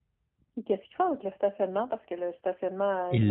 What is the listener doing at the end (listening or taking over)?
taking over